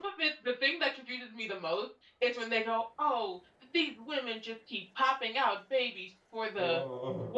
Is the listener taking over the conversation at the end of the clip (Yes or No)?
No